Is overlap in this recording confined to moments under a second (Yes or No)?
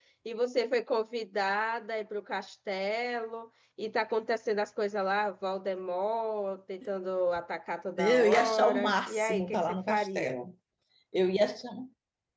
No